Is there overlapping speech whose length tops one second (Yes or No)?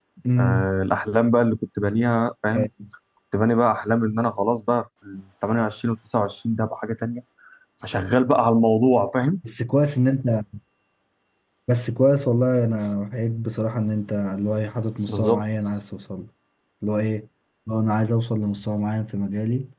No